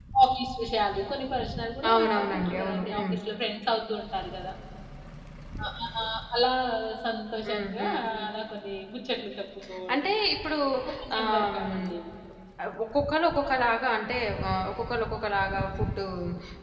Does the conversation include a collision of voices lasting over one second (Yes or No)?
Yes